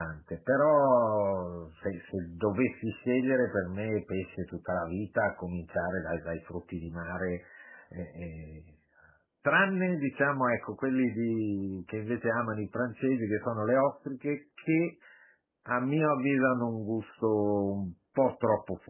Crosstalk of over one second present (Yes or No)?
No